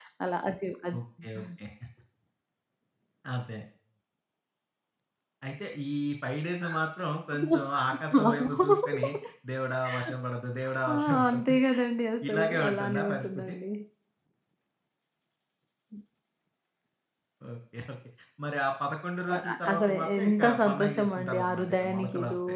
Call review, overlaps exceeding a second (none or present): present